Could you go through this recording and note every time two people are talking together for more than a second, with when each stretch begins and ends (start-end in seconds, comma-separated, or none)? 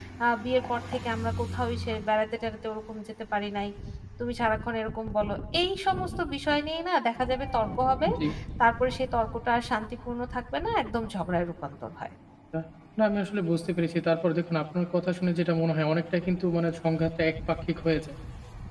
none